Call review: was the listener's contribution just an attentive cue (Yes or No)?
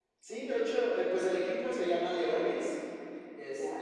Yes